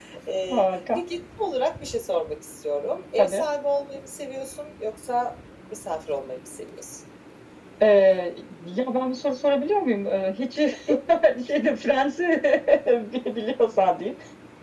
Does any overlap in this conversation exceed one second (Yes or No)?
No